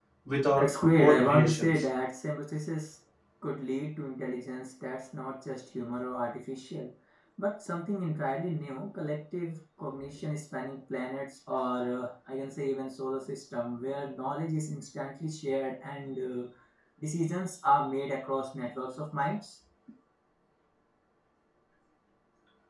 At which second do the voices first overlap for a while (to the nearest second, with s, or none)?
1 s